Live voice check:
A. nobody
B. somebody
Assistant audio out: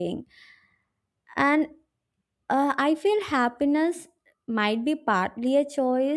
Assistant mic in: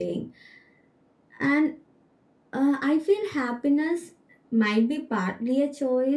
A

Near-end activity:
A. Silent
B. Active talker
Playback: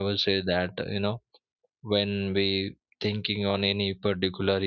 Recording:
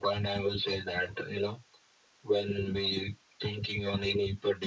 A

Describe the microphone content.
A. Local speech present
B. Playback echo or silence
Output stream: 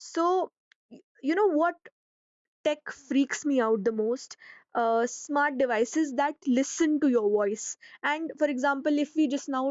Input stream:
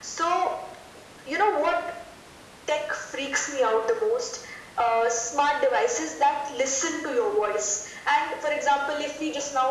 B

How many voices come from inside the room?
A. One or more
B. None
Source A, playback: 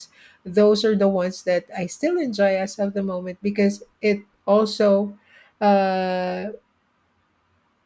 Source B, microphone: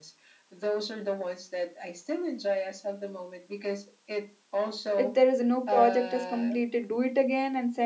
A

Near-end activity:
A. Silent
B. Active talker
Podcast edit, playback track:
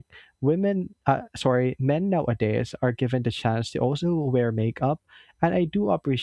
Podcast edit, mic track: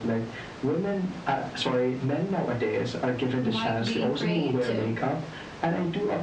B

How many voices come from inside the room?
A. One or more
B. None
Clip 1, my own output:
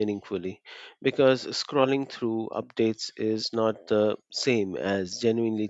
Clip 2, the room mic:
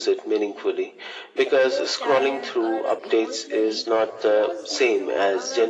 A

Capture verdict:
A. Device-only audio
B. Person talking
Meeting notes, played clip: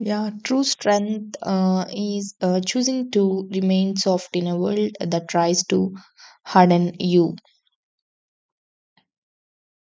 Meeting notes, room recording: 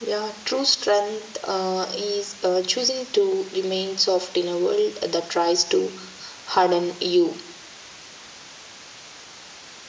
A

